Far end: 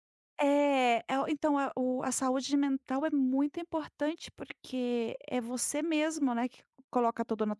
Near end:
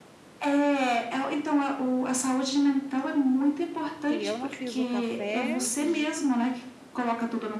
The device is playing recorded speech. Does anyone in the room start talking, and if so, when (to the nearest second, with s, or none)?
4 s